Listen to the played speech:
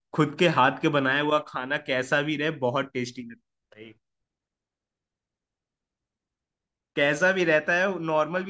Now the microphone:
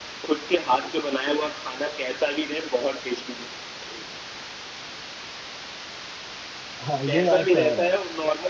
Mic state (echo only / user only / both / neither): both